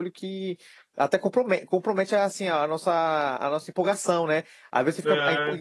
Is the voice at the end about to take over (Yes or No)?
No